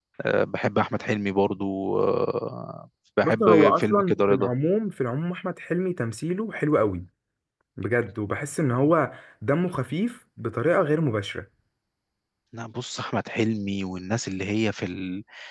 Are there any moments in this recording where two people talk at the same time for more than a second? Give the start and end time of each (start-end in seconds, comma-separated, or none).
3.2-4.5